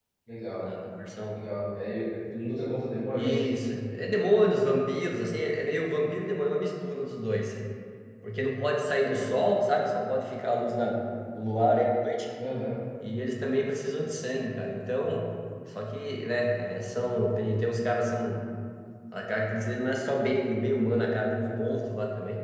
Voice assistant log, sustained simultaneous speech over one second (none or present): none